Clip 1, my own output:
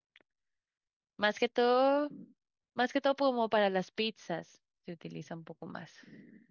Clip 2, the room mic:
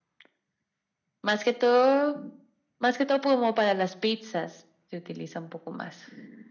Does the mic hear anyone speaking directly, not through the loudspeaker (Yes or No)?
No